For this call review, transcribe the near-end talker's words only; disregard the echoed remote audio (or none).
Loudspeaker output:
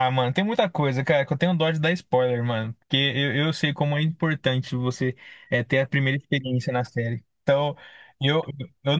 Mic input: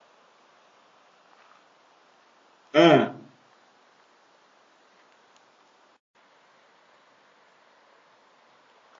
Ah.